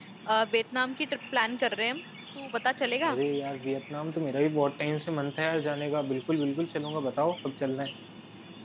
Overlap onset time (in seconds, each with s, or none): none